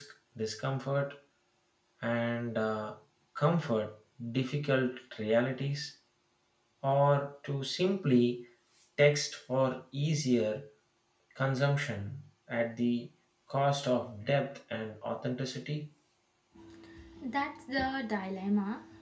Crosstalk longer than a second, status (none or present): none